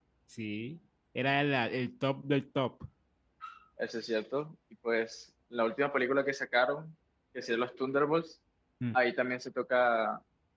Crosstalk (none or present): none